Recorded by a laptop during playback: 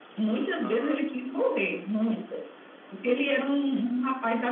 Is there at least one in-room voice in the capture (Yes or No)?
Yes